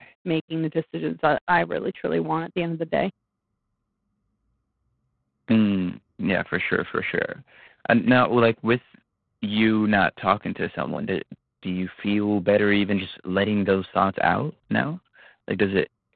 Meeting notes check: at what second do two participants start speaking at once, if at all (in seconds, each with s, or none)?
none